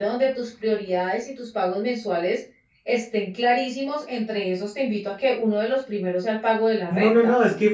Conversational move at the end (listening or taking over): taking over